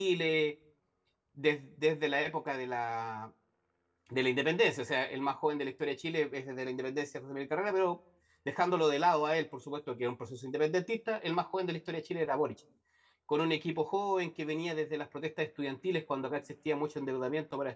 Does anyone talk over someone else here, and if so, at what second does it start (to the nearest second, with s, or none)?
none